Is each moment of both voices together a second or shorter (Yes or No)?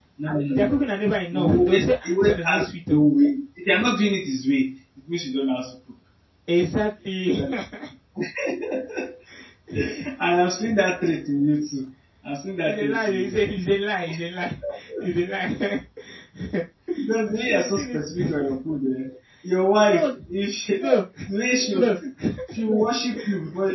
No